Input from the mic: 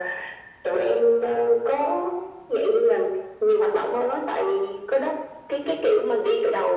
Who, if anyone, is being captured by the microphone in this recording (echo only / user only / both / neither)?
echo only